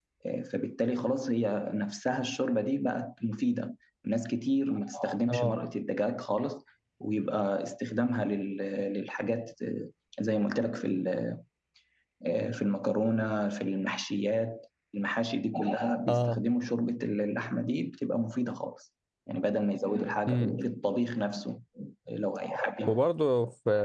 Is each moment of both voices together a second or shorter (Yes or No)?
Yes